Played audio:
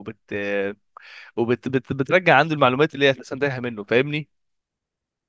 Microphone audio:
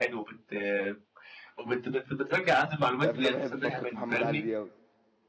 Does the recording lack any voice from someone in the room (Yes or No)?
No